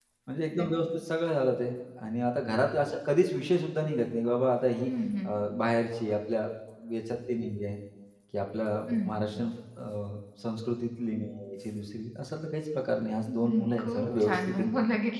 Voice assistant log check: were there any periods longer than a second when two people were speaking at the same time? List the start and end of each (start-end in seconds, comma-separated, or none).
13.3-14.7